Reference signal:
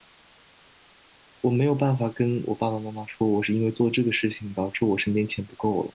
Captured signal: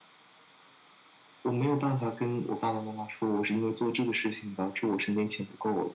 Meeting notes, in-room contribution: none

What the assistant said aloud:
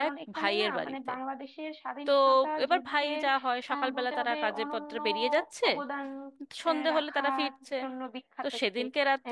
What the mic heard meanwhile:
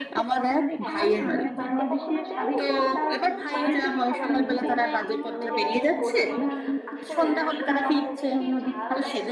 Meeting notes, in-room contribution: present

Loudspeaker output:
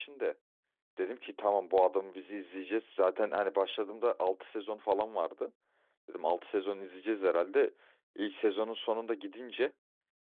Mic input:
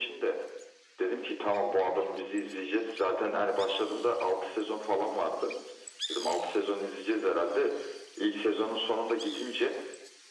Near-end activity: none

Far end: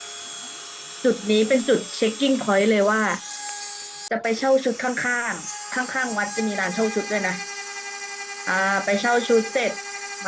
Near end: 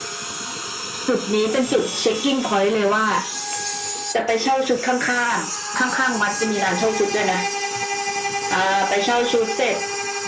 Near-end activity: none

